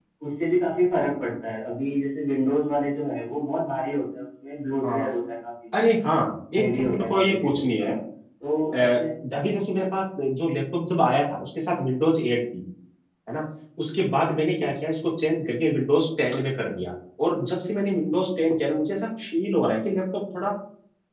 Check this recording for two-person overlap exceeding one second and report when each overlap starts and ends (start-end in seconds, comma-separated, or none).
6.6-7.9